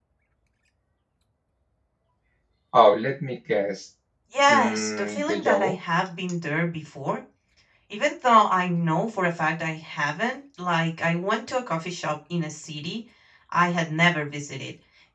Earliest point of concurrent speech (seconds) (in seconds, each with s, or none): 4.5 s